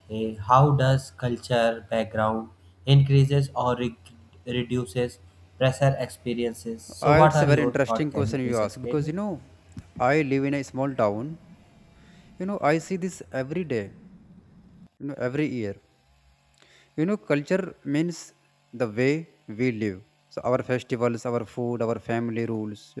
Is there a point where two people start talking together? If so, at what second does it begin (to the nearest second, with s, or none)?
7 s